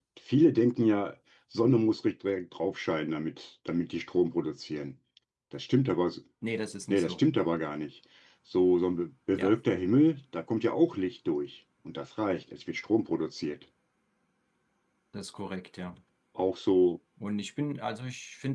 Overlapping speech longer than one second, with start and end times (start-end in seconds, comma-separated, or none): none